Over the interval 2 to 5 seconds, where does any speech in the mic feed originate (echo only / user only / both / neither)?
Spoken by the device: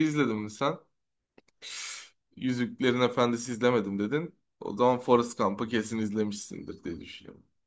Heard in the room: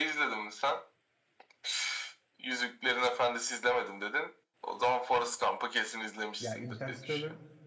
echo only